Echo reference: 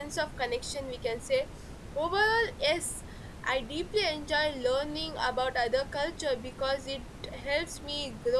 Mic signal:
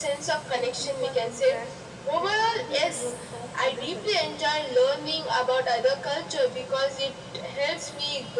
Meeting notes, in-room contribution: present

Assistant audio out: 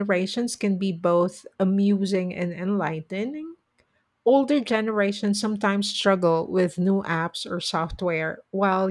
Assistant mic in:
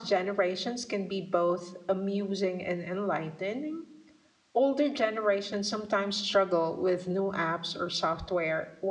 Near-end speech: none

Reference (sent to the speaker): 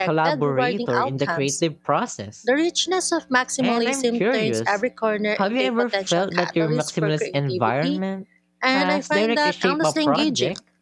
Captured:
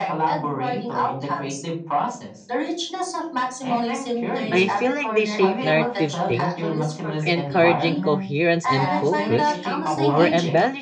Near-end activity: present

